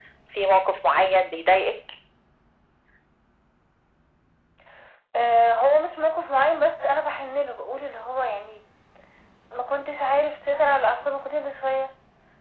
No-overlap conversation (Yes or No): Yes